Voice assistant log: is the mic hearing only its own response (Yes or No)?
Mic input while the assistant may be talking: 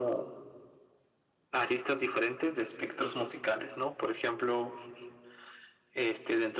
Yes